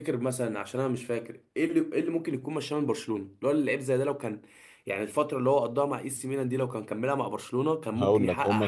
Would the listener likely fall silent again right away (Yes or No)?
No